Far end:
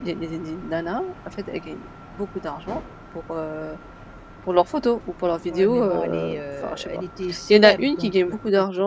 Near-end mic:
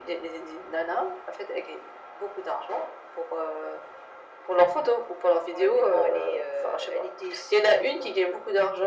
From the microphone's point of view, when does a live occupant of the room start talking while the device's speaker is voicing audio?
none

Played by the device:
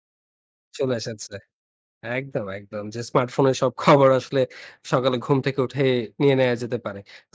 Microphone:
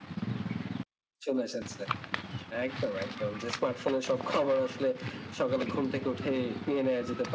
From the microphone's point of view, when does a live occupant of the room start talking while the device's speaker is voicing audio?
none

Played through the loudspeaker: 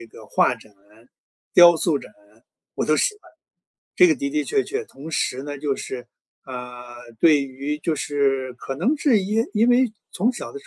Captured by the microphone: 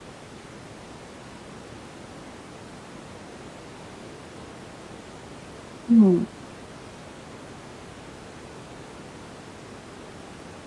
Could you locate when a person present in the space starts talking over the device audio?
6 s

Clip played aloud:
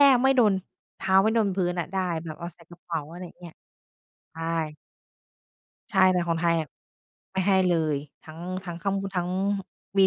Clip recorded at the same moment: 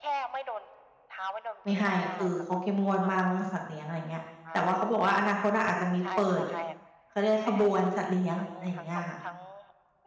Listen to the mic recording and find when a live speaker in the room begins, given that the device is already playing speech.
2 s

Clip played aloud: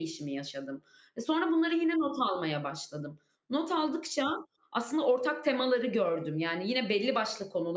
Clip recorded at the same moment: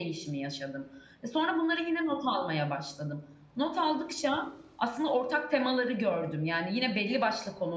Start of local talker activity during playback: none

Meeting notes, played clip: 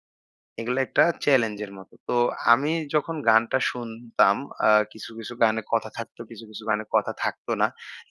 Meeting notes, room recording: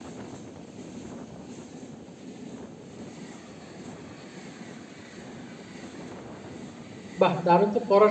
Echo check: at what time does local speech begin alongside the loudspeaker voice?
7 s

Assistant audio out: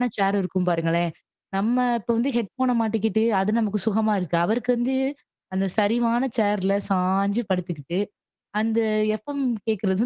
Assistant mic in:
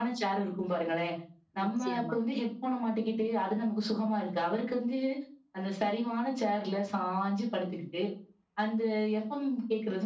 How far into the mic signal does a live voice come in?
2 s

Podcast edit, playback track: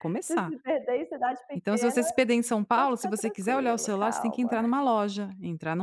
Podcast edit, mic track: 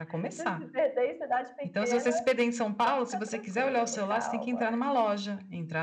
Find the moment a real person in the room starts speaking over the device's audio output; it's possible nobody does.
none

